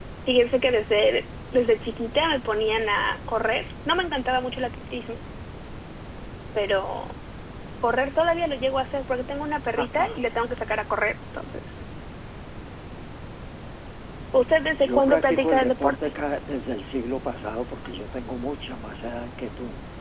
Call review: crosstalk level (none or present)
present